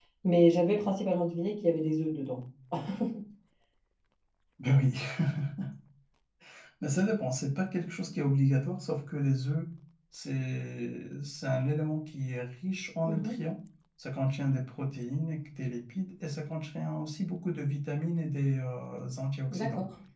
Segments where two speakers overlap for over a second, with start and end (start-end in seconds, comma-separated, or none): none